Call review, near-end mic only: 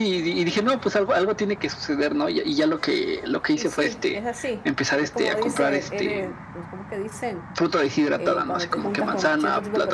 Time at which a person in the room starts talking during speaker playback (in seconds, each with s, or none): 3.5 s